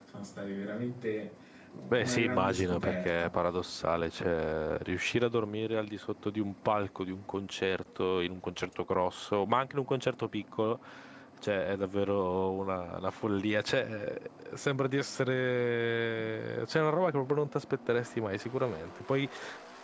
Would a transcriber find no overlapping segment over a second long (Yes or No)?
No